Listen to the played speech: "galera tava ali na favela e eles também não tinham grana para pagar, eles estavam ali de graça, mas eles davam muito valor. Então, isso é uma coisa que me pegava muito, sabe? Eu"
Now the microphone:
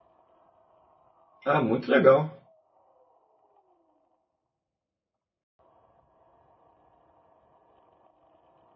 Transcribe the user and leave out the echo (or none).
Ah, muito legal.